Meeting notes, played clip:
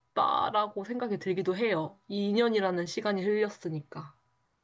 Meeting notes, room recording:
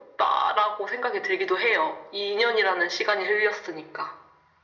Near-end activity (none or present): none